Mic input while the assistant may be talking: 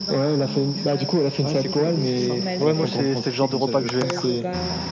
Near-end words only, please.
Ouais, c'est cool, ouais, c'est simple. Ouais, moi, c'est c'est le genre de repas que je vais faire.

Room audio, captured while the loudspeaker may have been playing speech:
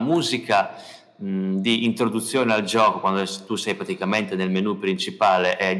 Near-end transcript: none

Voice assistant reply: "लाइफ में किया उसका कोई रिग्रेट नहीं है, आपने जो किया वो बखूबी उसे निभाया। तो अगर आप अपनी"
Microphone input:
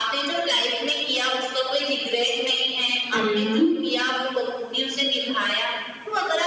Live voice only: हुँ, हुँ।

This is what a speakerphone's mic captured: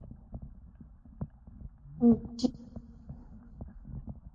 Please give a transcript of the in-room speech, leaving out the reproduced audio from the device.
जी,

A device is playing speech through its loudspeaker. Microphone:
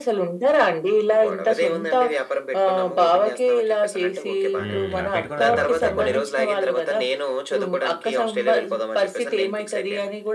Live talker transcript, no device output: హ్మ్. ఆ పెట్టుకున్న తర్వాత ఆయన

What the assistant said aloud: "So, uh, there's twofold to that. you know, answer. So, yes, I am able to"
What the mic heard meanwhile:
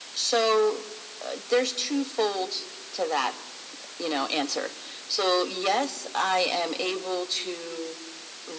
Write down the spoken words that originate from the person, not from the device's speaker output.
none

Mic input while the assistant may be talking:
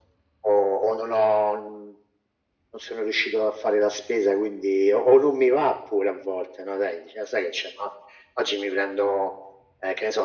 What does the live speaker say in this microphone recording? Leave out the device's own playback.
none

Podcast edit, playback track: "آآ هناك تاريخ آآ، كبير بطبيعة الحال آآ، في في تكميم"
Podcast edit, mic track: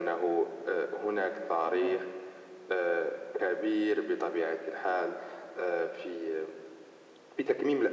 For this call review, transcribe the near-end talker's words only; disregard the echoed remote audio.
نعم،

